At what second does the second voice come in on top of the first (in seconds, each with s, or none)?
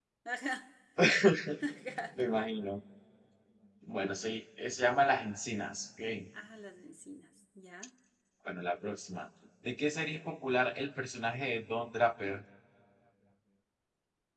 none